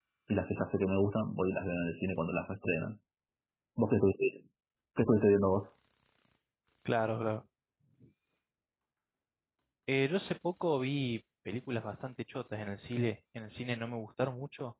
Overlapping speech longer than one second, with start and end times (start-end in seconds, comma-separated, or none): none